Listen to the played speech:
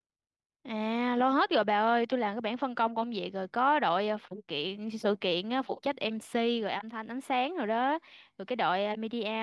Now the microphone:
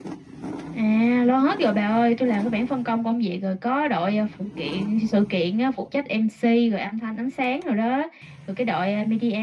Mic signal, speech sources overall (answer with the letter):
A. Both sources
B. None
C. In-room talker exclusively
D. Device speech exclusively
D